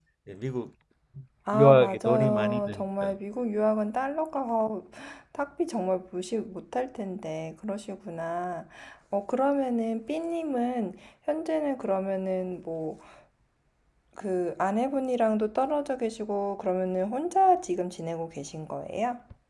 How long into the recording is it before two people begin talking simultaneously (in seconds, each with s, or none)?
1.5 s